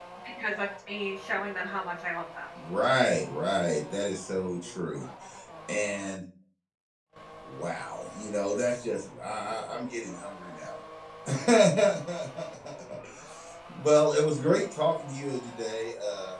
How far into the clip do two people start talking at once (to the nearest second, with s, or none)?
none